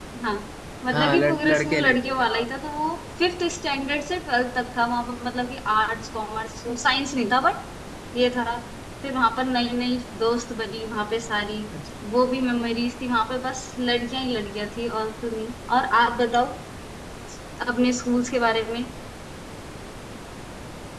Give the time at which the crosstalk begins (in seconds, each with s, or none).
0.9 s